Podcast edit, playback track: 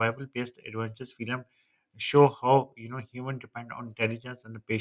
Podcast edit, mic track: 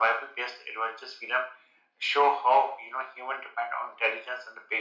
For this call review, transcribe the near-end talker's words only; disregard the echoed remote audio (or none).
none